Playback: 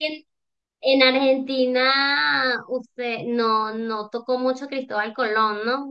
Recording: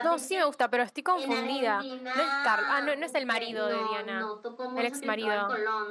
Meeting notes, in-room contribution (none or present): present